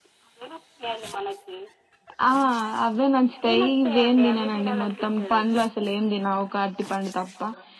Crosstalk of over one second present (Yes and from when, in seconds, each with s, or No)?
Yes, from 3.4 s